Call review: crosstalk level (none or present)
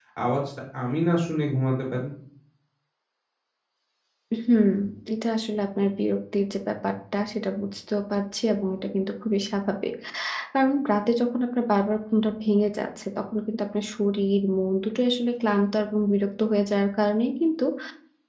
none